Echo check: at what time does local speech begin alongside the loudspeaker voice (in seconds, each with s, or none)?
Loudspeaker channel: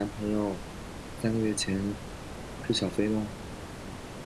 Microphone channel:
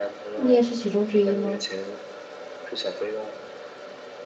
0.4 s